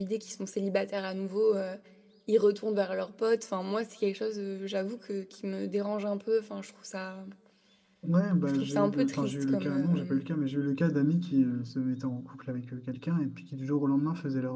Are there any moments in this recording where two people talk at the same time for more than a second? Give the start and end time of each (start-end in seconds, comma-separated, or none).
8.5-10.2